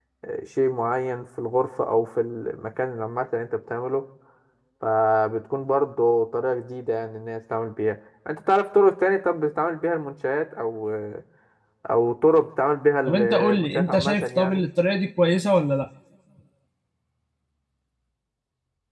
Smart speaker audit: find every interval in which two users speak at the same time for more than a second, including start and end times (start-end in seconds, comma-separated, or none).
13.1-14.6